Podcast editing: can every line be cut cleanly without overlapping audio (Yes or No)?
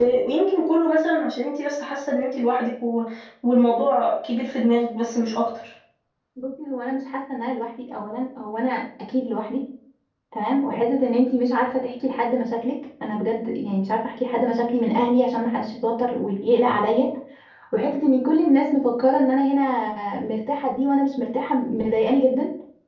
Yes